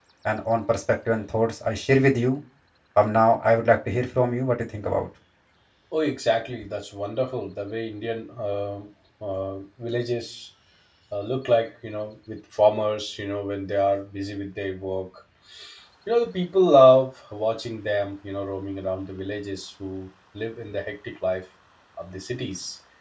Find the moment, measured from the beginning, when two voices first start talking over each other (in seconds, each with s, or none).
none